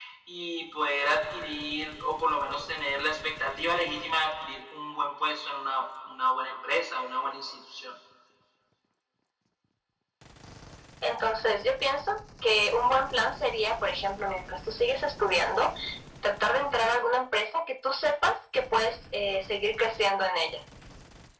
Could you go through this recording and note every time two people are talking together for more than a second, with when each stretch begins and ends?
none

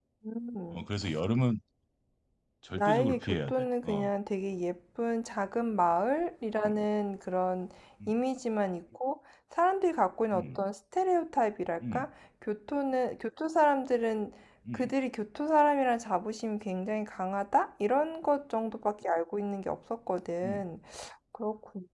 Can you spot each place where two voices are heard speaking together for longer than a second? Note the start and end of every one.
2.7-4.1

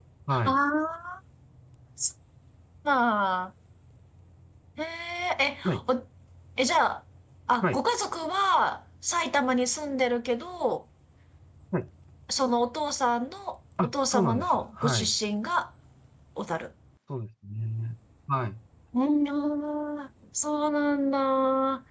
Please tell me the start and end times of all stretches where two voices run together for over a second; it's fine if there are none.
13.8-15.1

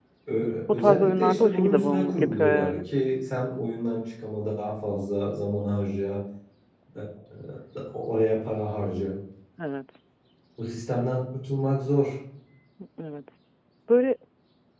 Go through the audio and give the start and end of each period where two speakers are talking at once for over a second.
0.7-2.8

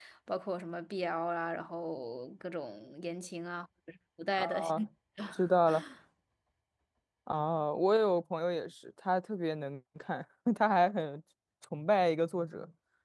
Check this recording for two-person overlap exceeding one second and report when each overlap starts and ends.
none

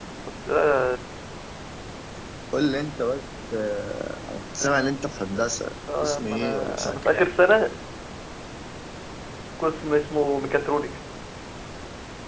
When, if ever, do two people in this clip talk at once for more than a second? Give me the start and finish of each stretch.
6.0-7.3

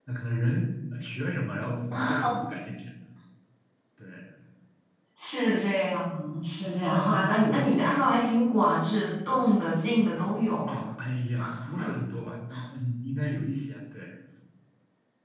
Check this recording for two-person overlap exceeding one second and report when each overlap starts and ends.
none

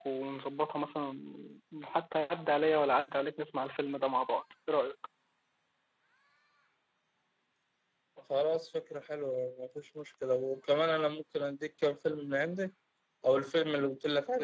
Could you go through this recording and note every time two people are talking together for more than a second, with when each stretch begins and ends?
none

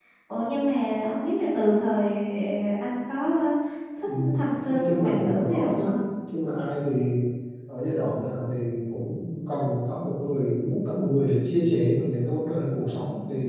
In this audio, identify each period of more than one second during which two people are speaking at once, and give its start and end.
4.7-6.0

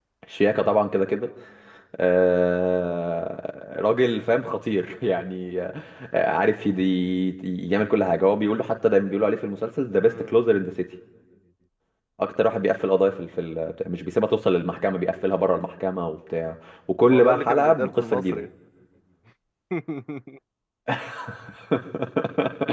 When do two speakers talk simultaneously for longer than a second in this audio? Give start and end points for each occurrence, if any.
17.1-18.4

